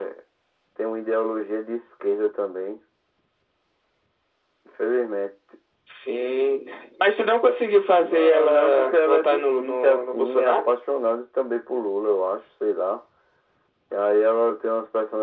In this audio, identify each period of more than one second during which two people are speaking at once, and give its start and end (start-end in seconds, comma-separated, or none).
8.0-10.7